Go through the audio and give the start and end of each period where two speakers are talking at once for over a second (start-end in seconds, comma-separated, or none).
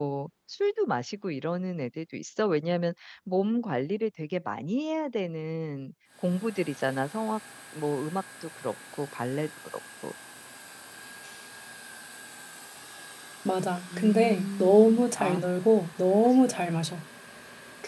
14.0-15.5